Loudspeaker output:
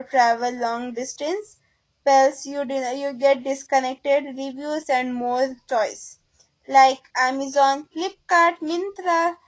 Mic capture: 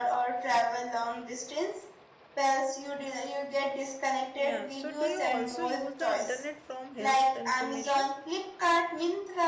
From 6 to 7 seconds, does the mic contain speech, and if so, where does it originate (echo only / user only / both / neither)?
both